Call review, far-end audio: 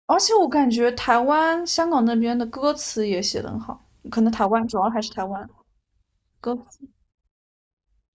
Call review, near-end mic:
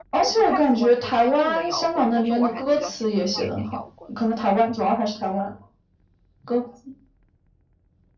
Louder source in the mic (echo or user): echo